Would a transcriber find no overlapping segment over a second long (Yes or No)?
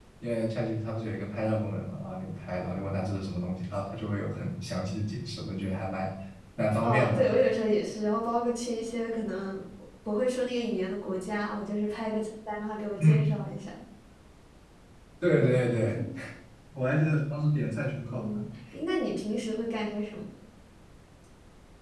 Yes